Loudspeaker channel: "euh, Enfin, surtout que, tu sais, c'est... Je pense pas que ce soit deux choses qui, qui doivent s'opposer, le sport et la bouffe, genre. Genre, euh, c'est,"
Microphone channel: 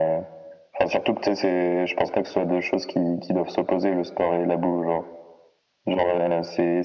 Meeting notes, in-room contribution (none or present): none